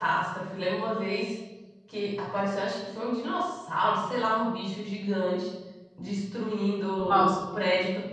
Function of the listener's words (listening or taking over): listening